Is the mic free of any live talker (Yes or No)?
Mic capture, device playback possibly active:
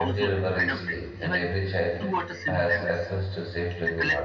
No